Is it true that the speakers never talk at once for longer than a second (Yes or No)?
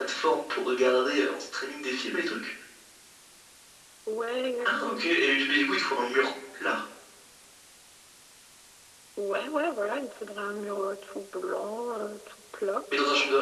Yes